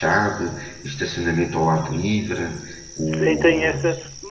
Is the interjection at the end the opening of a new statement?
Yes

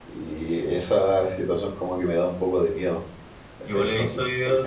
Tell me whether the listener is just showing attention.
No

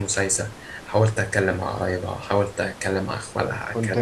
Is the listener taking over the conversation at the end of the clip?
Yes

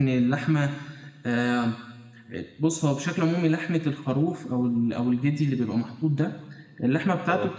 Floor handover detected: No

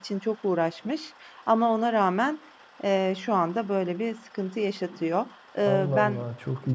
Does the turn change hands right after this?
Yes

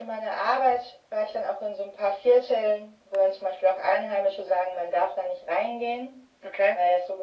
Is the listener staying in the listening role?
Yes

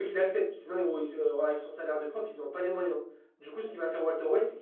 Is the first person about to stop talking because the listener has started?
No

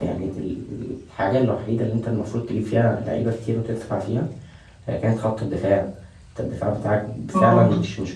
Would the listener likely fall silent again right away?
No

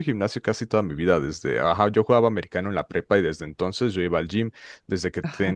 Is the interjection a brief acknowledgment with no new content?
Yes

